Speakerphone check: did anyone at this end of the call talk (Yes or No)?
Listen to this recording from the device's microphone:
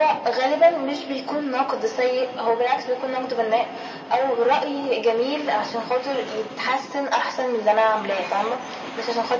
No